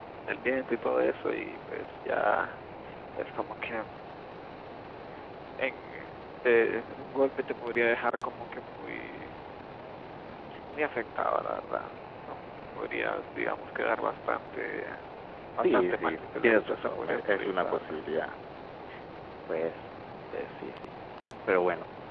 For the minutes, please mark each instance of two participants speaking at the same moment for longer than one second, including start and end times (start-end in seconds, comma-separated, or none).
15.6-18.0